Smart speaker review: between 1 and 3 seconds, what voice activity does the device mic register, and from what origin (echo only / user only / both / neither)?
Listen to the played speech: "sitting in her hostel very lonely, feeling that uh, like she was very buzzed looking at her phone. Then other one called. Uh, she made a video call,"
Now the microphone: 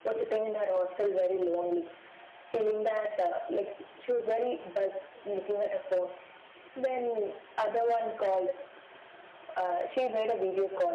echo only